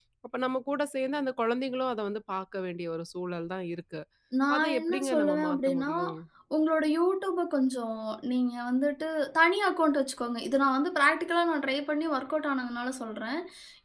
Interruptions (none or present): present